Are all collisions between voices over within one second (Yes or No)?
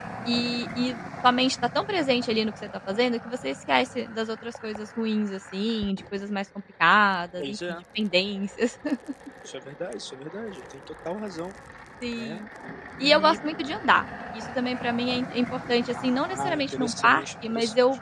No